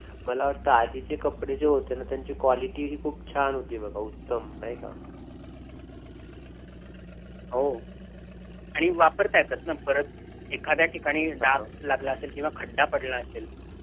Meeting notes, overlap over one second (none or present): none